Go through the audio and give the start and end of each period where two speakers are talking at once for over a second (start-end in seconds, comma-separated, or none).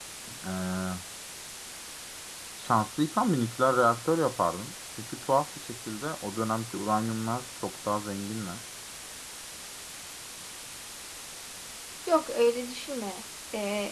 none